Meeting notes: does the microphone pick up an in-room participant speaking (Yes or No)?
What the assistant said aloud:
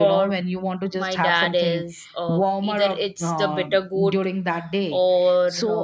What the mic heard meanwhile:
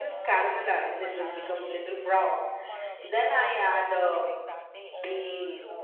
Yes